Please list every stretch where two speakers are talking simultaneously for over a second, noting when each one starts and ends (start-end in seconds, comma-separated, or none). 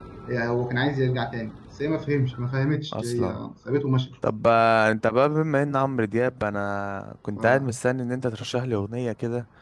none